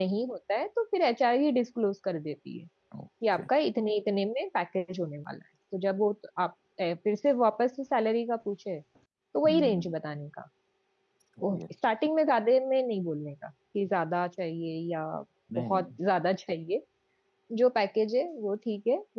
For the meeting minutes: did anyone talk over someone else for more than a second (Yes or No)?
No